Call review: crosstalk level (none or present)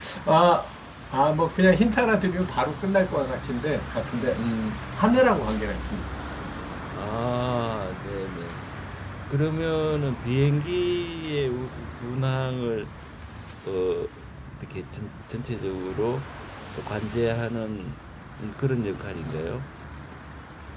none